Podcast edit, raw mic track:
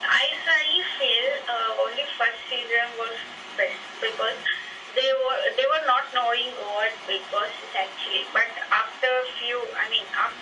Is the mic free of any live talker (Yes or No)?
Yes